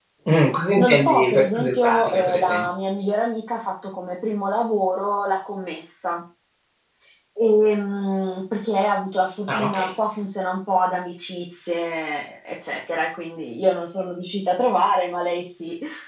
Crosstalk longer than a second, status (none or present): present